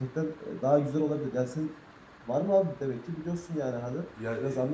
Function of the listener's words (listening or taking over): taking over